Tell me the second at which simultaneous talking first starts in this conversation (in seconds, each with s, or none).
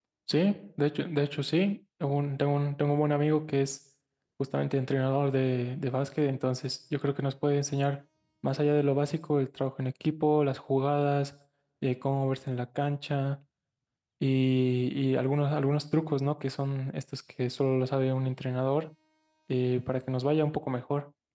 none